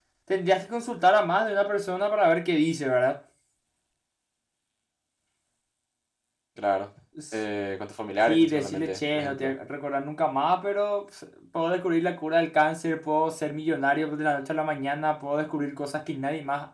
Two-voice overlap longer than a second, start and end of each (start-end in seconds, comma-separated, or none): 8.2-9.5